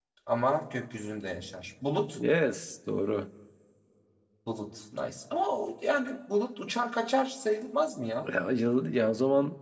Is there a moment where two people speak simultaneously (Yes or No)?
No